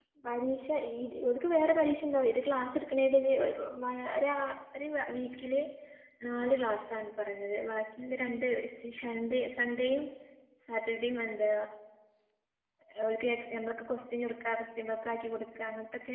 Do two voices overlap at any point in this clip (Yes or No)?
No